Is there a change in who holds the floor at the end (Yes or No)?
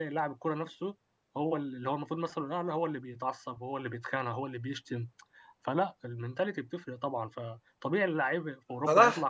Yes